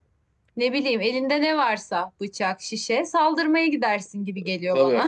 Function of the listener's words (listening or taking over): taking over